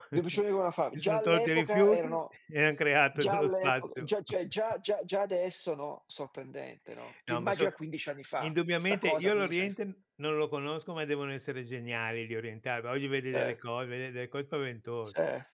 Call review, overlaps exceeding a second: present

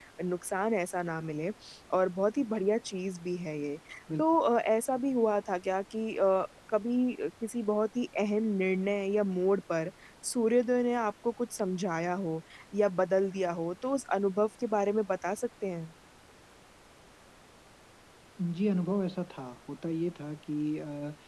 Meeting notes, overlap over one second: none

